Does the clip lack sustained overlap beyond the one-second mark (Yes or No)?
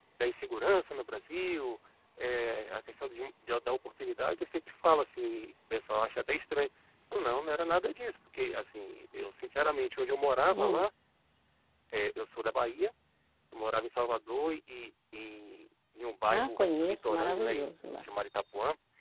No